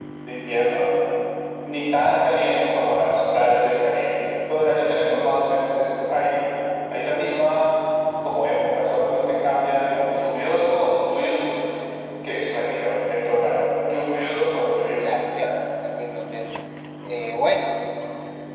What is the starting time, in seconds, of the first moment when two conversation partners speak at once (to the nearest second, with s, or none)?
none